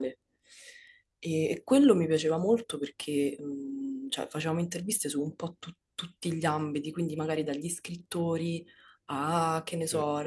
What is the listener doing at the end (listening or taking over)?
listening